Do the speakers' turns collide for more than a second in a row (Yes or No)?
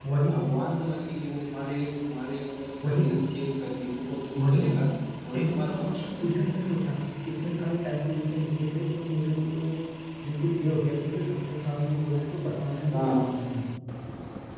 Yes